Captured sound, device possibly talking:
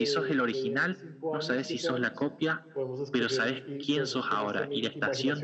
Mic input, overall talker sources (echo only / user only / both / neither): both